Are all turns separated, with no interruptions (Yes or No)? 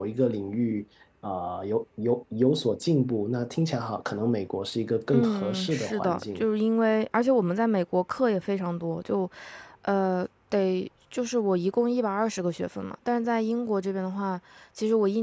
No